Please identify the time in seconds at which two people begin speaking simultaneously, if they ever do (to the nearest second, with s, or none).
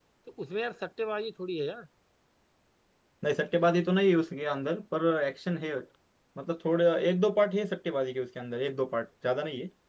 none